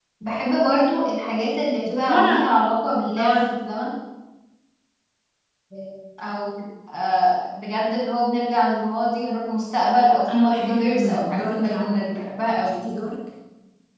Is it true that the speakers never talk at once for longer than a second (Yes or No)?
No